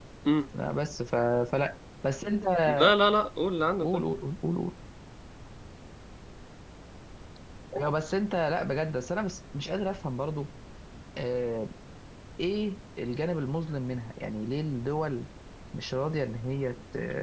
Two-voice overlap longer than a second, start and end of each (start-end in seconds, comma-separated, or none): none